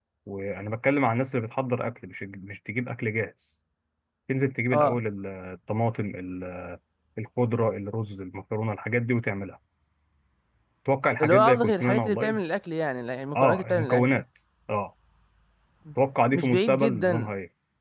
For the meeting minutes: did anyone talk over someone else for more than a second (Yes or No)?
Yes